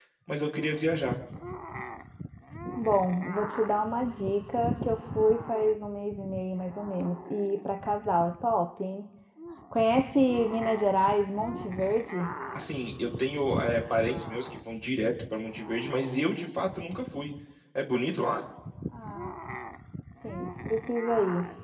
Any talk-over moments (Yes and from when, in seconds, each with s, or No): No